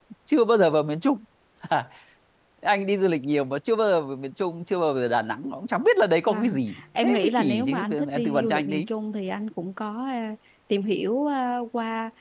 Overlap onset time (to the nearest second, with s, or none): 6 s